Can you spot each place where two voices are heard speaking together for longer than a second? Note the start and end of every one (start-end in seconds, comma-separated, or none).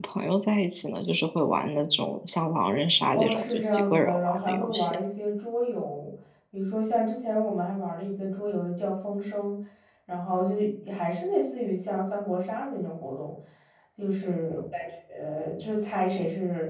3.1-5.0